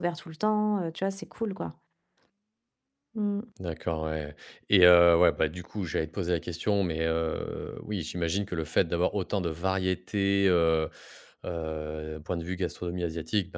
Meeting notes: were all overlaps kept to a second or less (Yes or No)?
Yes